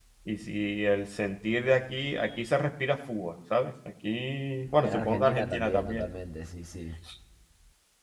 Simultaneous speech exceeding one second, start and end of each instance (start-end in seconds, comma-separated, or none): 4.8-6.0